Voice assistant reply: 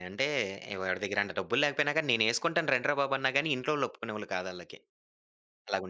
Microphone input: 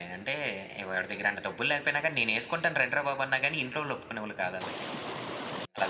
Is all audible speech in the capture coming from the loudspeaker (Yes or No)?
Yes